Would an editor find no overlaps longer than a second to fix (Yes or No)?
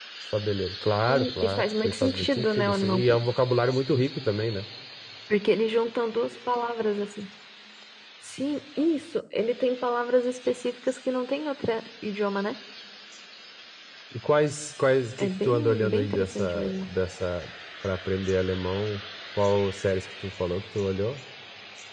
No